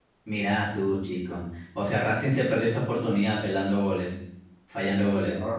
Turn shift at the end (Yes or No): Yes